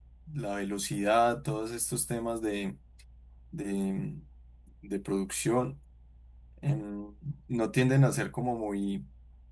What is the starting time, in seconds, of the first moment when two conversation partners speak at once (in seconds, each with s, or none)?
none